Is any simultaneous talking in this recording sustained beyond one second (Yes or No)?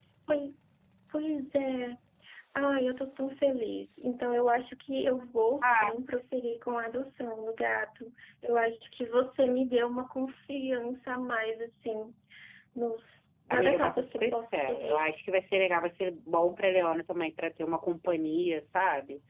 Yes